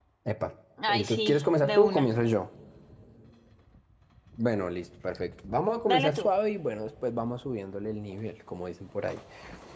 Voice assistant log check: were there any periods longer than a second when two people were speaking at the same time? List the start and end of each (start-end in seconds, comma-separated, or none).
0.9-2.1